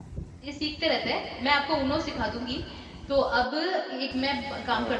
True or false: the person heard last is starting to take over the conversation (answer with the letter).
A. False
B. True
A